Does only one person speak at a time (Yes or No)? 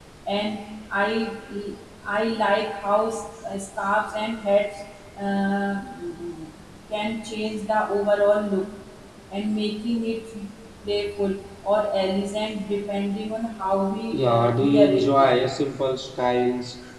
No